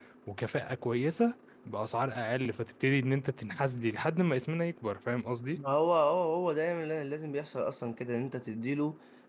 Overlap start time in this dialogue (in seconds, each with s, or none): none